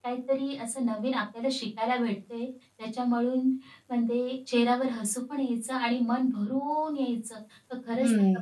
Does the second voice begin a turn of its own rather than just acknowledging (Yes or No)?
Yes